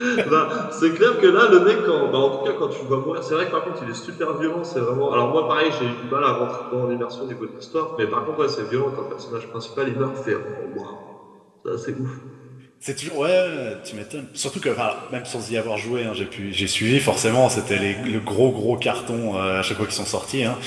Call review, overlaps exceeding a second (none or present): none